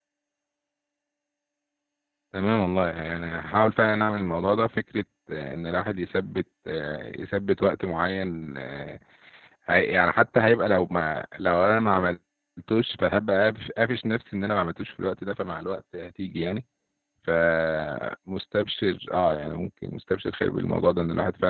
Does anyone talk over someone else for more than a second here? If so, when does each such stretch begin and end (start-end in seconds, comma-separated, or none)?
none